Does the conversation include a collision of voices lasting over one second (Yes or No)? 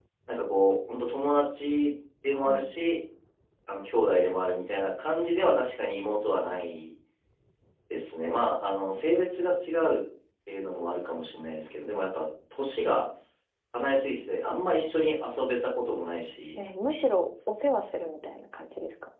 No